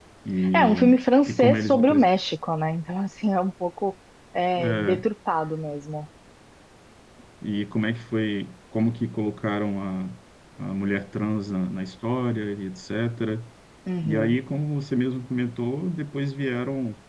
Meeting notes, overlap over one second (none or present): present